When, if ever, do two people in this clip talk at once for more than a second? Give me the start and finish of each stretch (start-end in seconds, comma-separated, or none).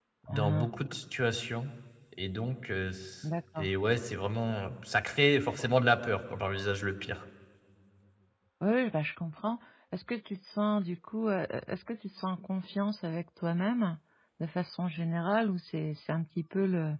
none